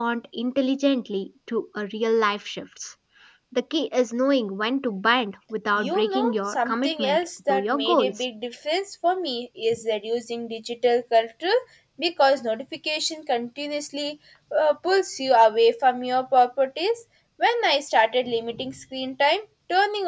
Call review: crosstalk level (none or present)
present